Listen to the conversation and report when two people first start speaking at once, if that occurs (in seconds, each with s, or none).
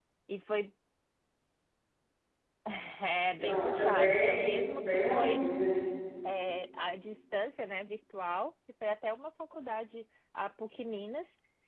3.4 s